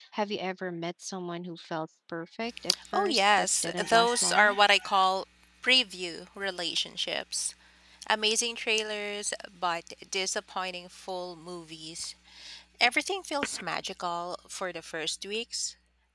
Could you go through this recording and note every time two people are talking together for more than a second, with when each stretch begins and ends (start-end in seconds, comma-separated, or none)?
2.9-4.6